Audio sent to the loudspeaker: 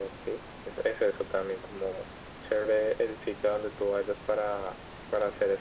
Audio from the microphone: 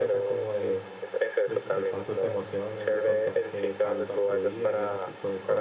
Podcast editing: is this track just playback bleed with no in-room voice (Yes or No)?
No